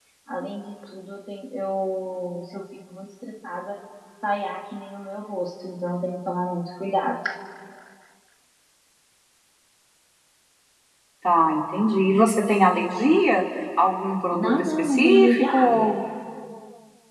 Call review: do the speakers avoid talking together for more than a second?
No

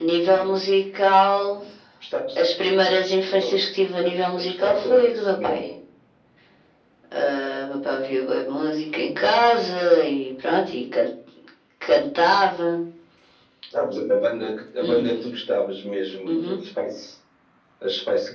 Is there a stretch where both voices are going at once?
Yes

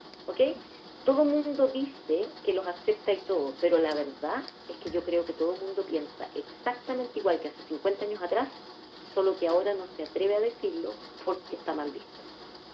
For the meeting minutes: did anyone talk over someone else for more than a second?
No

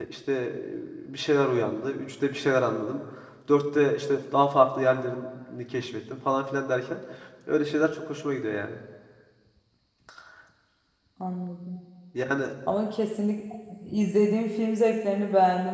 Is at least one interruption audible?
No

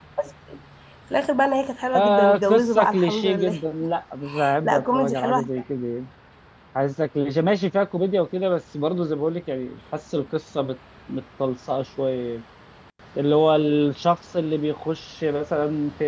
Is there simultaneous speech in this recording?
Yes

